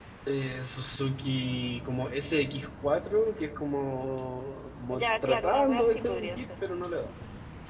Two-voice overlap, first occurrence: 4.9 s

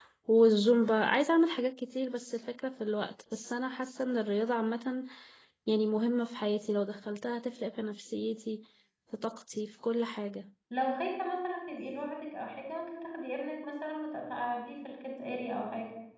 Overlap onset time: none

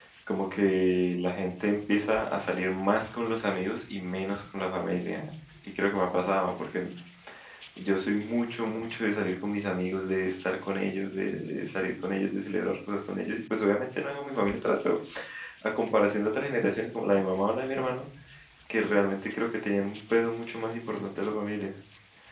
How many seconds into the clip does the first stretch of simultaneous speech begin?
none

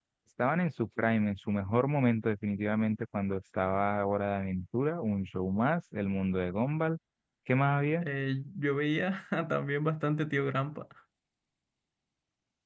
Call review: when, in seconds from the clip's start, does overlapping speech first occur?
none

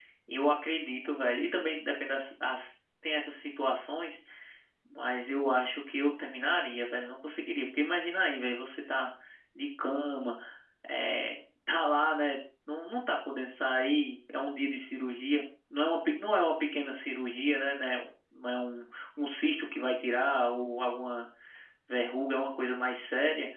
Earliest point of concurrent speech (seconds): none

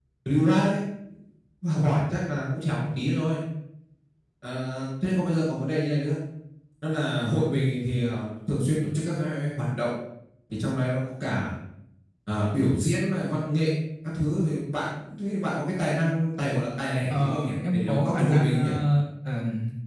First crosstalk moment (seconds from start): 17.1 s

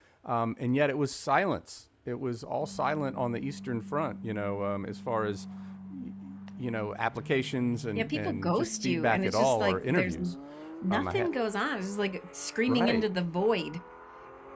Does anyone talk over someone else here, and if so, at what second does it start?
8.0 s

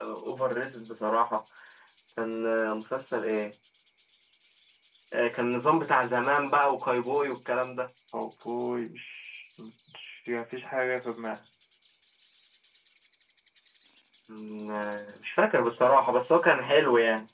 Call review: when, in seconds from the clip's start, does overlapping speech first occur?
none

